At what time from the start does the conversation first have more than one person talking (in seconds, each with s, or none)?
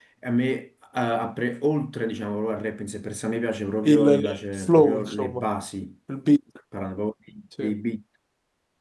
3.8 s